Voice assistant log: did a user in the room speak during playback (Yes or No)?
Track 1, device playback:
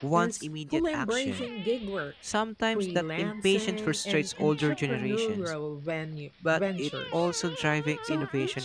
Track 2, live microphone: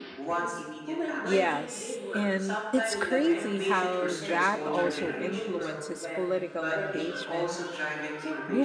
Yes